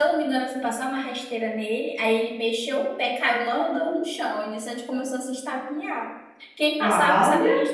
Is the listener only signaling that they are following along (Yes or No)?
Yes